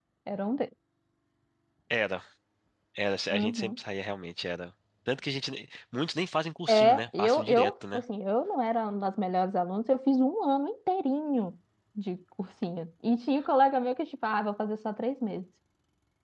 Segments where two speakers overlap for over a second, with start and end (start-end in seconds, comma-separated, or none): 6.7-8.0